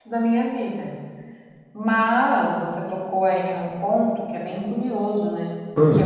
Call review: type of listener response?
listening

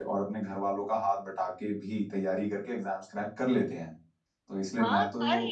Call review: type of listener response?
taking over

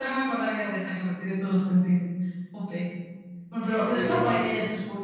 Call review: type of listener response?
listening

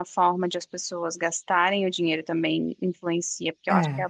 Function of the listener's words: listening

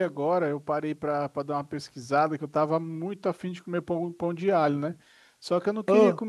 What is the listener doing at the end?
listening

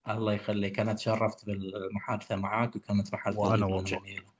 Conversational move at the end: listening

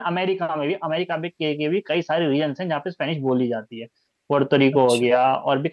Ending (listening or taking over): listening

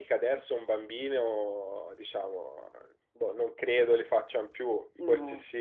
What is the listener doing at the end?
listening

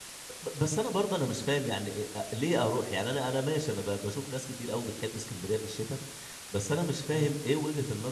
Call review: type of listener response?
listening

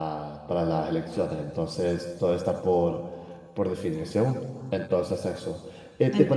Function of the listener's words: listening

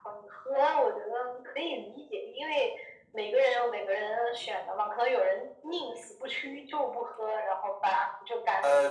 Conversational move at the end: taking over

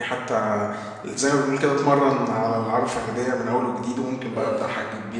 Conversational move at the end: listening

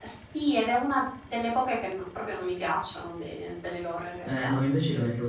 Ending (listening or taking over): taking over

